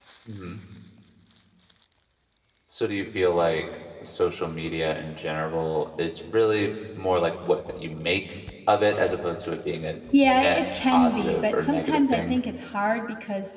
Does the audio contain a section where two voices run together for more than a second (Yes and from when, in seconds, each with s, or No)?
Yes, from 10.1 s